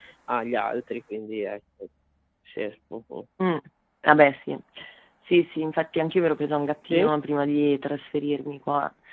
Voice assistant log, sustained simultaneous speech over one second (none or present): none